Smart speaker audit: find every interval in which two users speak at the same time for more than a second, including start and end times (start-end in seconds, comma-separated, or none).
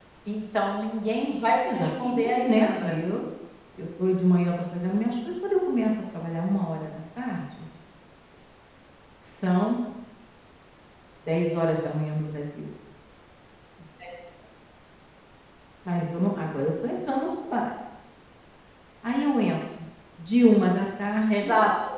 1.7-3.1